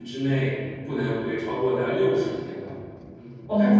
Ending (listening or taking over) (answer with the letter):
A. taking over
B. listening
A